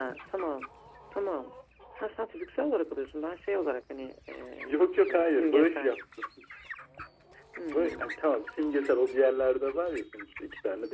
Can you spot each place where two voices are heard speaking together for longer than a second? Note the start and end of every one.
4.6-5.9

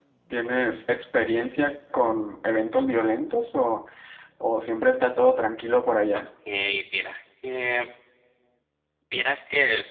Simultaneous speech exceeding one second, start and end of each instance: none

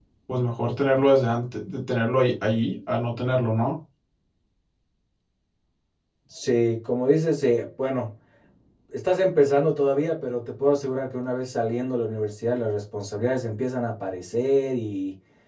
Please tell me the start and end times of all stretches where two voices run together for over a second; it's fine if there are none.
none

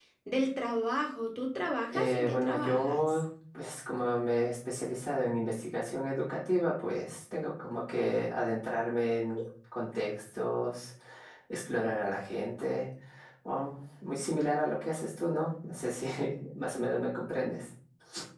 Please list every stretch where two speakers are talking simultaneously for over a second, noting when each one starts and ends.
1.9-3.2

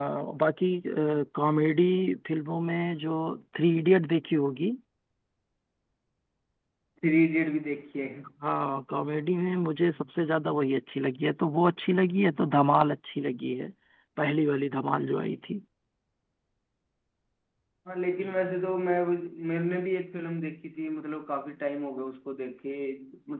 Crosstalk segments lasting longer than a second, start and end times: none

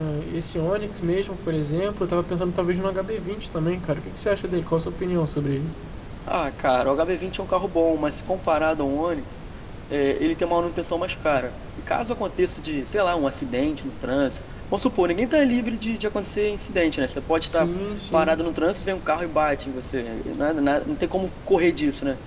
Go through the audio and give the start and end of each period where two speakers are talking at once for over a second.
none

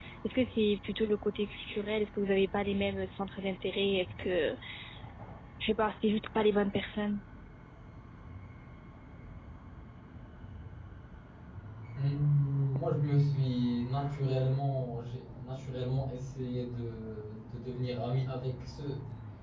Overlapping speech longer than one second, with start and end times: none

